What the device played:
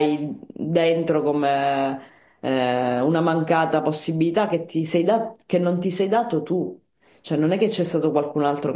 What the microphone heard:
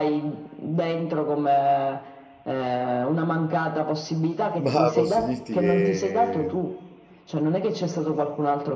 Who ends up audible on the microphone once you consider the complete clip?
both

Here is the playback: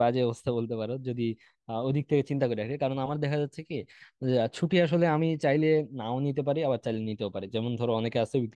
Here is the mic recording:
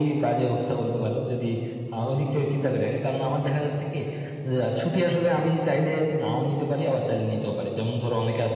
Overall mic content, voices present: echo only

